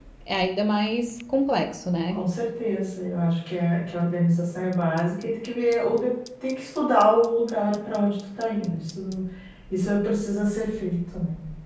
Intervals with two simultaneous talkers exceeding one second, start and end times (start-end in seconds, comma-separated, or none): none